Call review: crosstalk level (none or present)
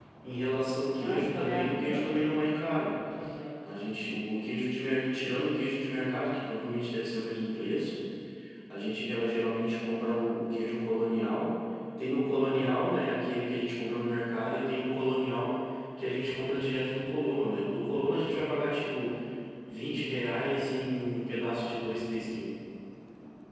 present